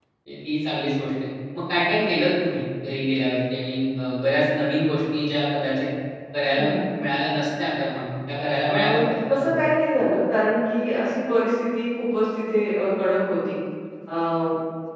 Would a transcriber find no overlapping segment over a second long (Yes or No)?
Yes